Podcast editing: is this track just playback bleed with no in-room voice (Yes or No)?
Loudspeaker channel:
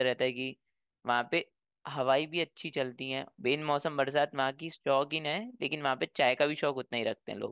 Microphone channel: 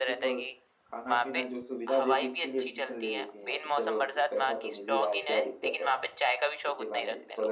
No